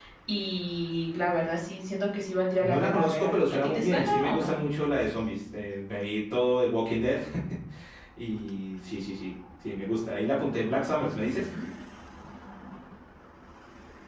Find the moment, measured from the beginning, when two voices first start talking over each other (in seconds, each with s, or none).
2.6 s